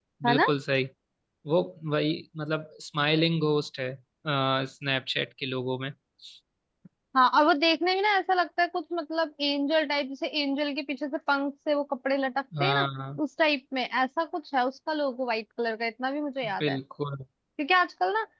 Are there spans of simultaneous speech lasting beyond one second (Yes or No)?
No